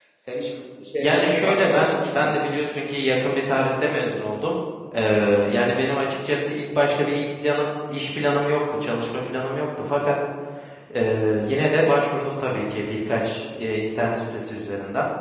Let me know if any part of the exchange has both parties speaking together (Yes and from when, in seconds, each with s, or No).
Yes, from 1.0 s